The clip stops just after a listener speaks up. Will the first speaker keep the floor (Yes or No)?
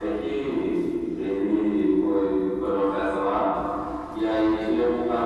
Yes